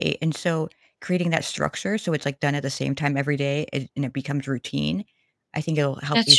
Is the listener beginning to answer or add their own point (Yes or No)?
No